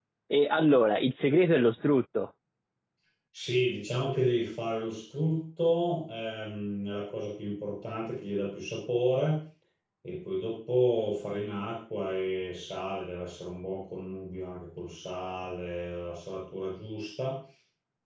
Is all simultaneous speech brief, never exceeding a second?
Yes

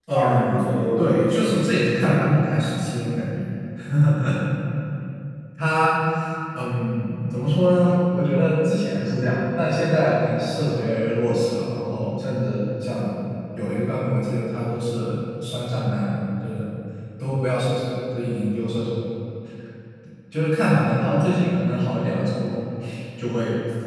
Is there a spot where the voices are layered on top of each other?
Yes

